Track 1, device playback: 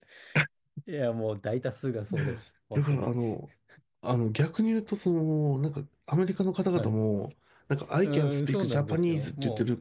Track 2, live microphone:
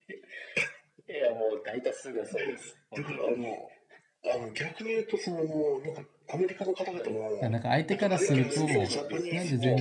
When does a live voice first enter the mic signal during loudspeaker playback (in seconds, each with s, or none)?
7.4 s